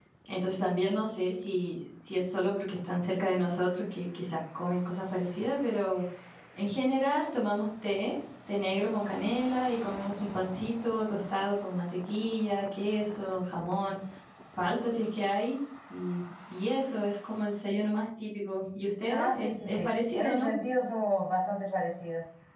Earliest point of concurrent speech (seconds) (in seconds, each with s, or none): 19.1 s